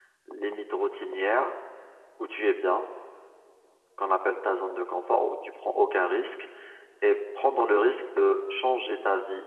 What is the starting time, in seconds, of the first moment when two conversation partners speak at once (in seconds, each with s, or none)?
none